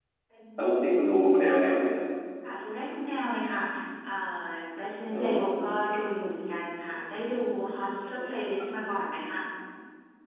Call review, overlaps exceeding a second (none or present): none